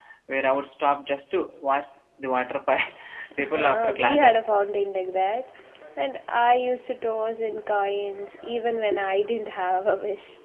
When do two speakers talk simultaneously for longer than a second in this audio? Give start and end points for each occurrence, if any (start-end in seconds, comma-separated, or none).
3.4-4.7